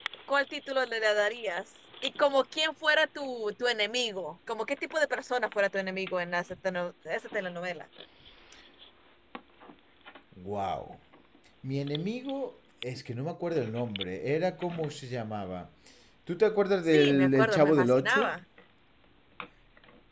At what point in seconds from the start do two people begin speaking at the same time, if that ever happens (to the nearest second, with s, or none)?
17 s